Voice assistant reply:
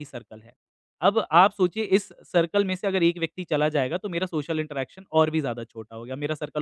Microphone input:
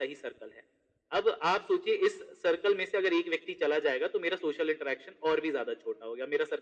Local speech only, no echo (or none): none